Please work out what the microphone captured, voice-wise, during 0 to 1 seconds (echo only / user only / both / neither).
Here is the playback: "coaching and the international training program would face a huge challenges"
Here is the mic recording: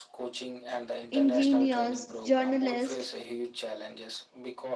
echo only